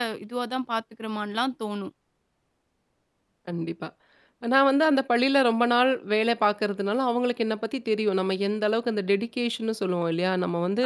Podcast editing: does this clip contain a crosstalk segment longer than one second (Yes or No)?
No